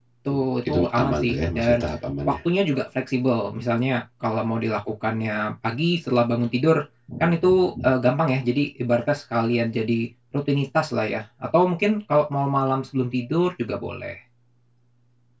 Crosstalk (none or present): present